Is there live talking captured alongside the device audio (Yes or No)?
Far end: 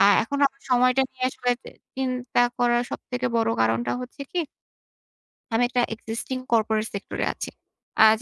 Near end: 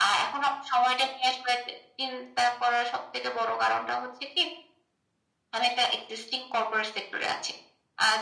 No